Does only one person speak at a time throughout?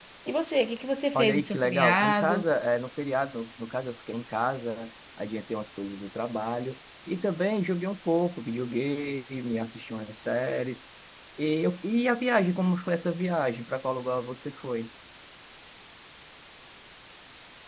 No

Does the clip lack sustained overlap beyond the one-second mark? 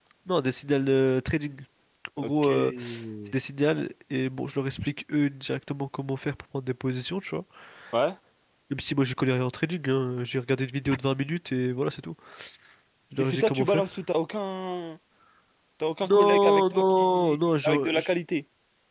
No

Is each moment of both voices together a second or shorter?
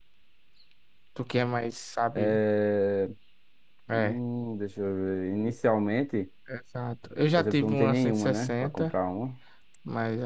No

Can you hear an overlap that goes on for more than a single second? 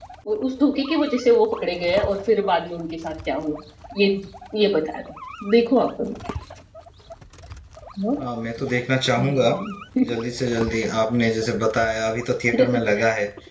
No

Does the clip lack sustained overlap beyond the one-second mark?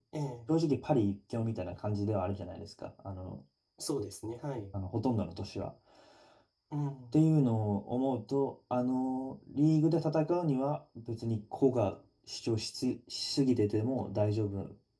Yes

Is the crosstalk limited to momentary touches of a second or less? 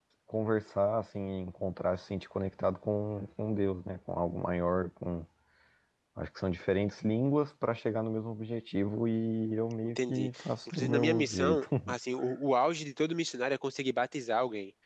No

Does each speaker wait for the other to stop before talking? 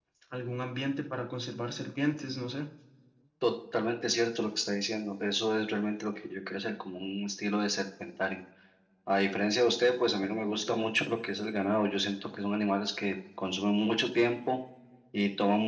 Yes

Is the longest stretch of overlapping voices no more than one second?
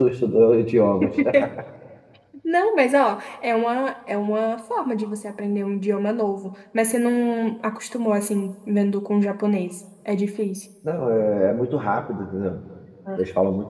Yes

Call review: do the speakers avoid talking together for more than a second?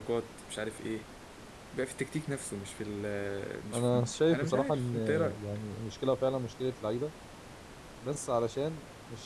No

